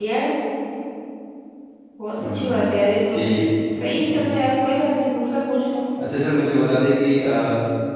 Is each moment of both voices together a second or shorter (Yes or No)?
Yes